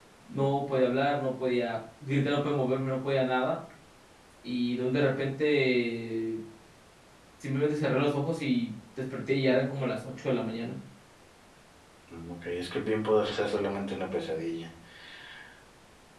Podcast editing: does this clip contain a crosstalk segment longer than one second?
No

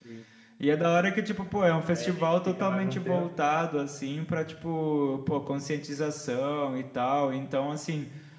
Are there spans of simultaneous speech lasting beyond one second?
Yes, from 1.9 s

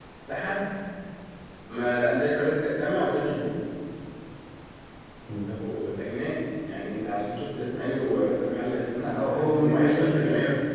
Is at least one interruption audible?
Yes, from 9.0 s

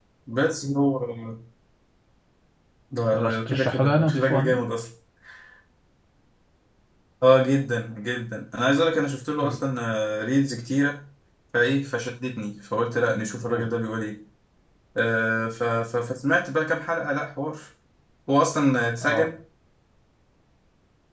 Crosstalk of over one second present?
Yes, from 3.2 s

